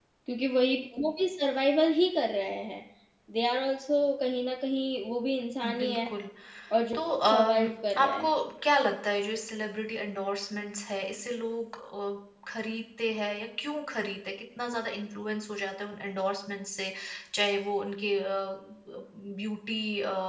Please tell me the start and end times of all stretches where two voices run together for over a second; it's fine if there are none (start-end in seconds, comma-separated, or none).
6.9-8.3